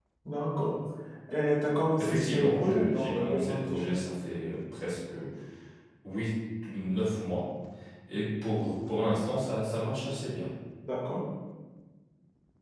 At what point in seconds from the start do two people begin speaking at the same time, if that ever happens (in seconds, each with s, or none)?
2.0 s